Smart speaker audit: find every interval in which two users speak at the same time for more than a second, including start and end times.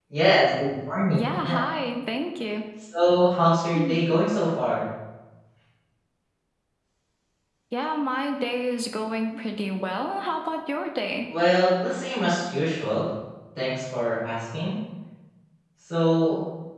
none

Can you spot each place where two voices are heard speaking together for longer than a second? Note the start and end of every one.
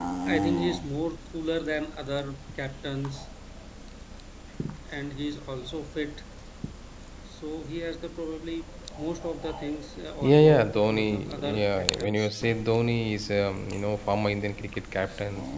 10.2-12.3

